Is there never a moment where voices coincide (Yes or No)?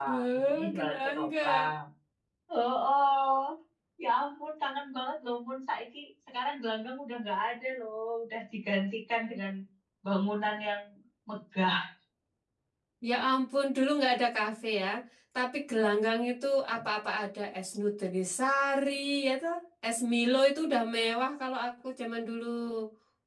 No